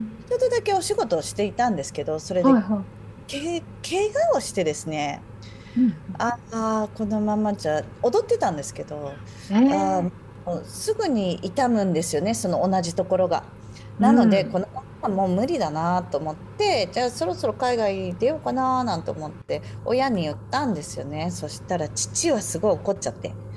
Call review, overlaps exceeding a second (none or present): none